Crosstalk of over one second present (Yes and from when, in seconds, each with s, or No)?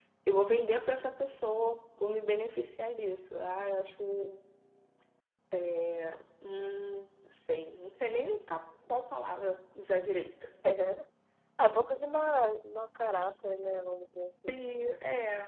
No